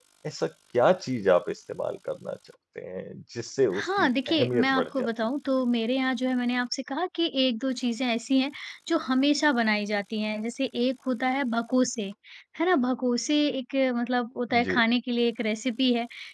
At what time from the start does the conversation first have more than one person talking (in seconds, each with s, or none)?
3.7 s